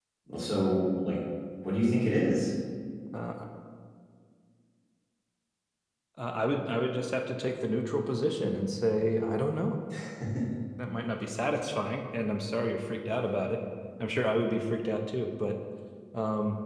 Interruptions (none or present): none